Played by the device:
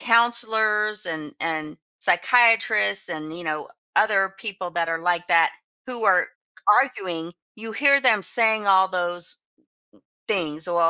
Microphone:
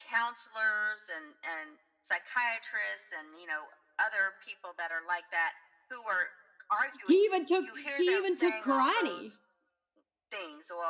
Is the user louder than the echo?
Yes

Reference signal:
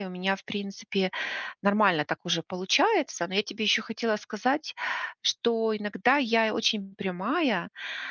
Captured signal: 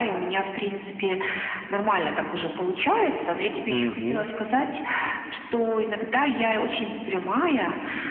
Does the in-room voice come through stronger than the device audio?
Yes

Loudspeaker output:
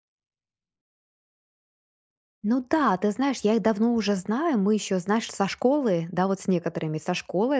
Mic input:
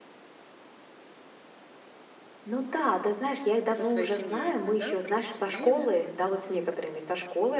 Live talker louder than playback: No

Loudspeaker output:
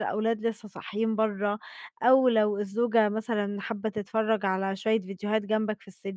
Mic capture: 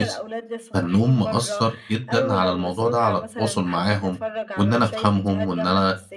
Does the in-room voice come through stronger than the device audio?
Yes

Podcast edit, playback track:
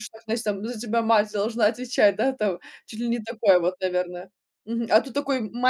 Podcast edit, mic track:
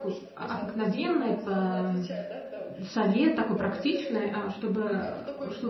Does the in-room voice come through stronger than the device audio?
Yes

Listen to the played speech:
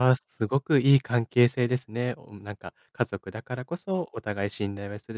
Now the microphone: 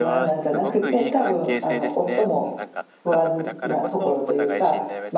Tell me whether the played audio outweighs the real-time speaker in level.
No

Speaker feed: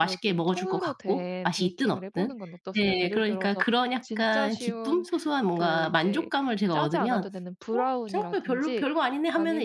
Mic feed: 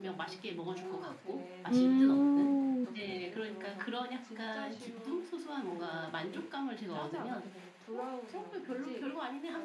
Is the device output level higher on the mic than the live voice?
No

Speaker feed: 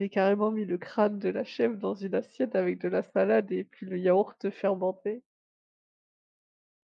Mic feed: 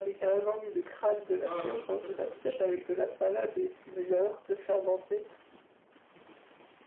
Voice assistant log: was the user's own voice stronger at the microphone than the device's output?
No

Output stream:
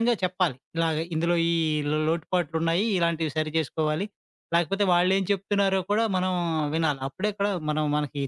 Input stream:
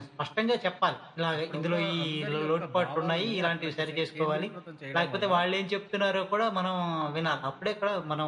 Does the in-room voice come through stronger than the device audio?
No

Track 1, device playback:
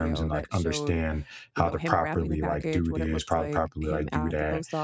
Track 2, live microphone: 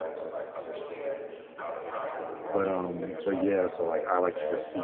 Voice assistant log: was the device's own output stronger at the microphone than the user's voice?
No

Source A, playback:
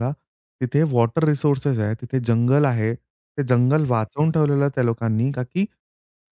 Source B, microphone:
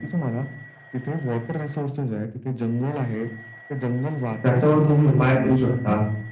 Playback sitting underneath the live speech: Yes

